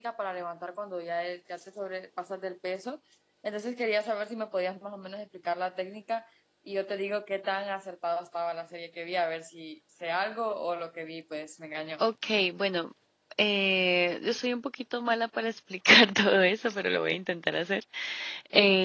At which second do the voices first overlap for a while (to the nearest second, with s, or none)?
none